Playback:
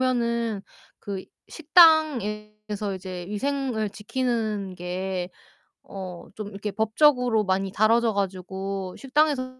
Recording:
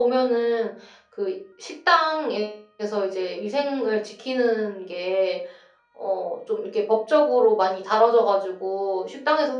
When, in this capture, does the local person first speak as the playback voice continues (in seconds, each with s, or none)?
none